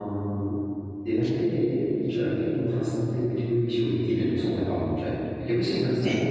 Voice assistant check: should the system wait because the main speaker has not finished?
Yes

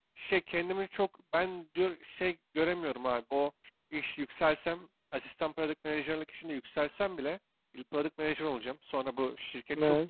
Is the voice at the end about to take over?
No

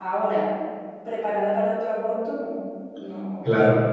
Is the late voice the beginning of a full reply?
Yes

